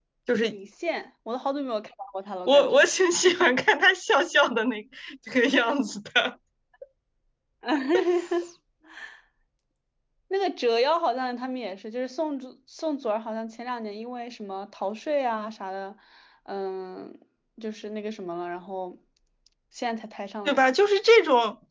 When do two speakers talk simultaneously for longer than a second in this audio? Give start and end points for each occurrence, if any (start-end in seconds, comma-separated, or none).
none